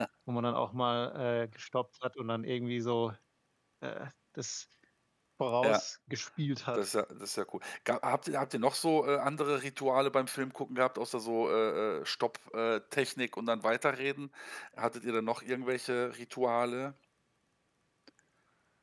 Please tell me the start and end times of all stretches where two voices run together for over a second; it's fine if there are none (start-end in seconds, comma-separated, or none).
none